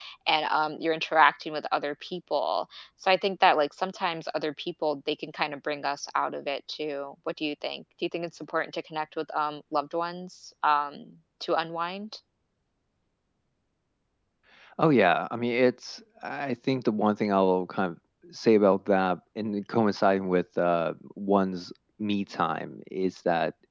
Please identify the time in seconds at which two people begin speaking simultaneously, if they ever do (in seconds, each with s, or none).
none